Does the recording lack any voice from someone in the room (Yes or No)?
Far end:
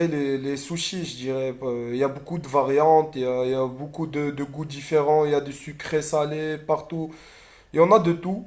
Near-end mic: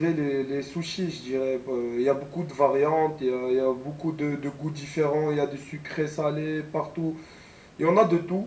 Yes